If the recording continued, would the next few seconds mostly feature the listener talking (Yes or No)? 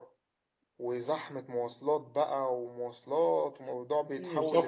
Yes